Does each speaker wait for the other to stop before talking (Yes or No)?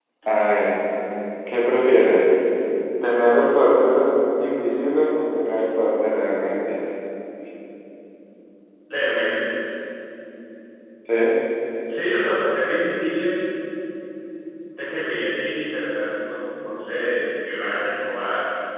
Yes